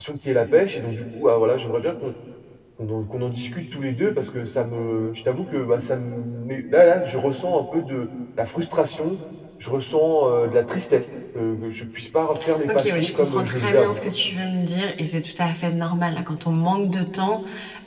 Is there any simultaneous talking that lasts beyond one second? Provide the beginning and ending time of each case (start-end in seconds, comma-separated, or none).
12.7-14.0